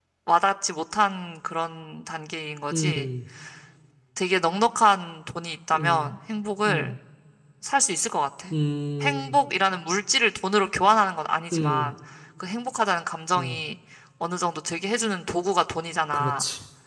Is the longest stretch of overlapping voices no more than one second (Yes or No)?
Yes